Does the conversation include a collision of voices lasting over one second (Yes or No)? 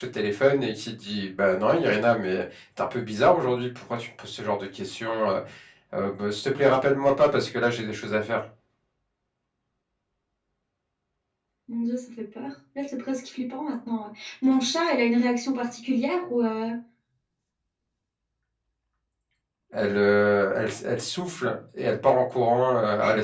No